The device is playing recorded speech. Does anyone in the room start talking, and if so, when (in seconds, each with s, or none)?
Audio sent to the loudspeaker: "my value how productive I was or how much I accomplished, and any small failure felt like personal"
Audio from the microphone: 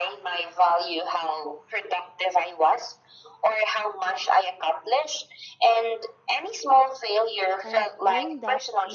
7.6 s